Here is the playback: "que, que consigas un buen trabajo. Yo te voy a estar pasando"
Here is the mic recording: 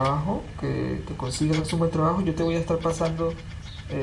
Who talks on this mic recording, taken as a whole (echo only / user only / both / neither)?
echo only